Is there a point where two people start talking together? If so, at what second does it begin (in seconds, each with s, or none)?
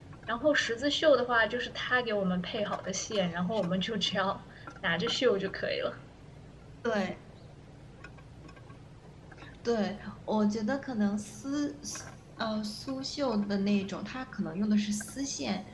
none